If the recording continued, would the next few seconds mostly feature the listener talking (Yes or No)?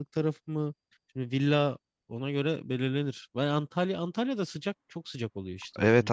Yes